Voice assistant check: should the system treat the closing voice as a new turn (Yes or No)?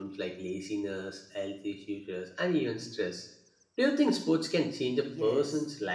Yes